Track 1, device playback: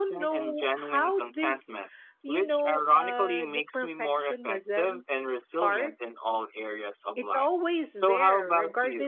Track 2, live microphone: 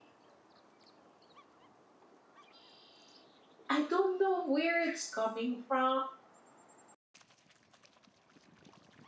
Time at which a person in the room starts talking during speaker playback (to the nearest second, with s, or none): 4 s